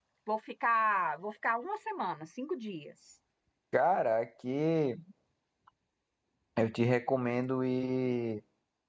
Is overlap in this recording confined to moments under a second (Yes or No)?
Yes